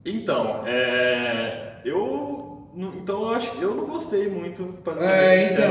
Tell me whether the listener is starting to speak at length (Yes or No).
Yes